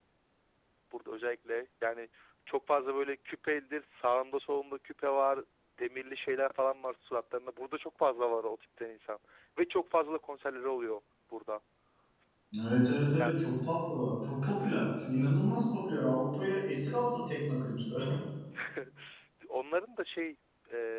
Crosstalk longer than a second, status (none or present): none